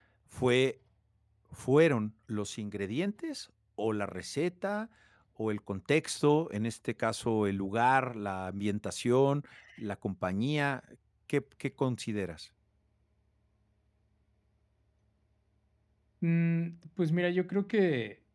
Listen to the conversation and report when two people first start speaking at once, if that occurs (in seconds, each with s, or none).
none